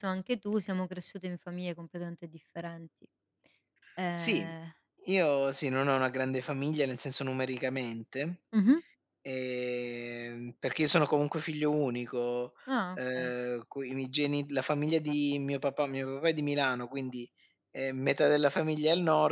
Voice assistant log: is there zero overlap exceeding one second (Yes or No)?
Yes